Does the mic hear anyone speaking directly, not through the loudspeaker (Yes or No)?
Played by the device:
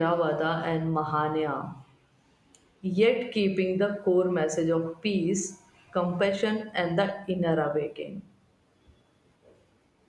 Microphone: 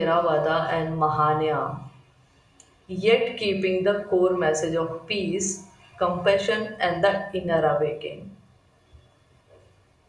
No